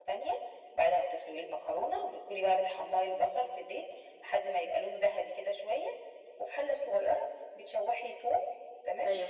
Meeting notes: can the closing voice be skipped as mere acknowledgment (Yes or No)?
Yes